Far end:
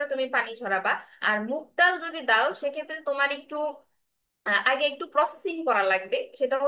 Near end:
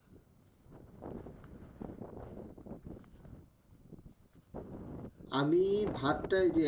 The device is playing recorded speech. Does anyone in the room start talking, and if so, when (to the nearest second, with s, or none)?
5 s